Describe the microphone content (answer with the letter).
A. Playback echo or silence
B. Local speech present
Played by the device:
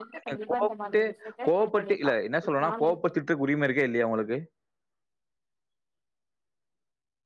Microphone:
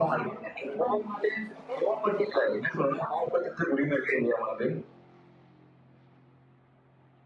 A